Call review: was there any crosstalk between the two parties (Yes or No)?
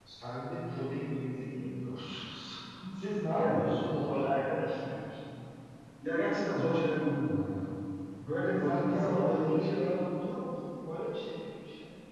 Yes